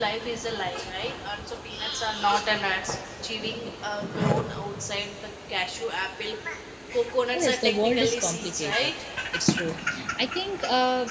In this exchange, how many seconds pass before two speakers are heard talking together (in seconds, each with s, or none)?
7.4 s